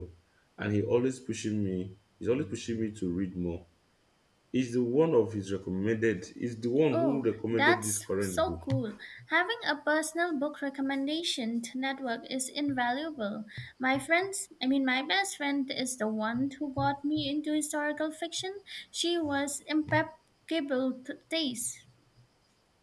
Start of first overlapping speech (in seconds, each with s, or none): 6.9 s